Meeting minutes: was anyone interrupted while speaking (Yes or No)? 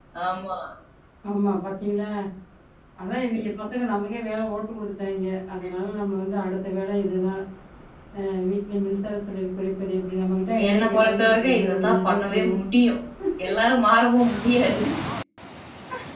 Yes